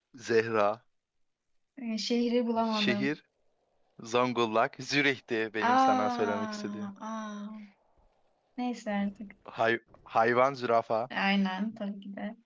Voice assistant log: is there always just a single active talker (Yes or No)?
No